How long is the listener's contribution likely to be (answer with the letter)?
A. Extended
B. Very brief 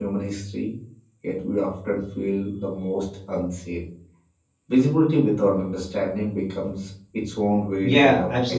A